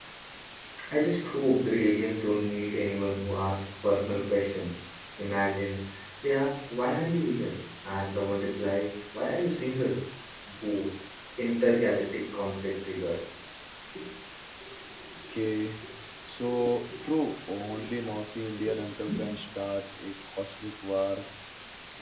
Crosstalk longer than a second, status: none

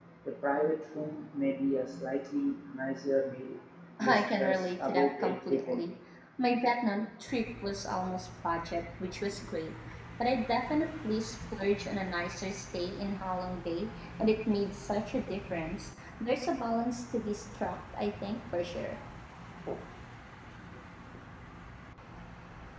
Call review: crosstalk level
present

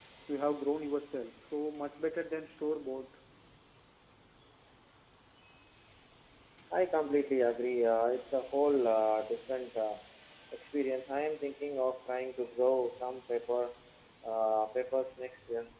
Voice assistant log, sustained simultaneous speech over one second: none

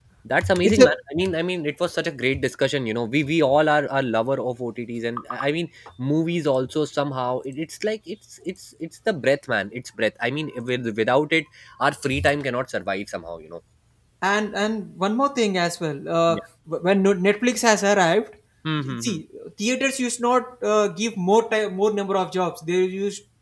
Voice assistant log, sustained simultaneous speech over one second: none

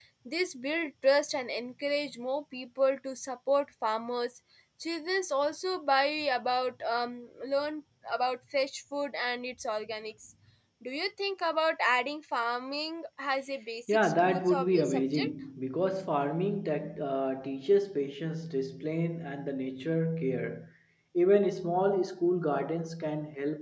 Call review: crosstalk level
present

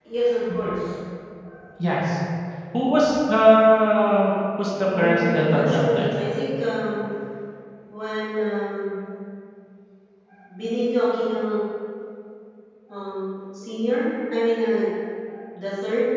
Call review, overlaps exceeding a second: present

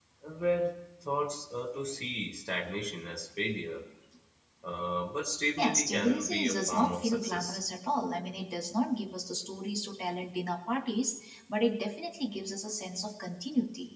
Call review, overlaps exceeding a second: present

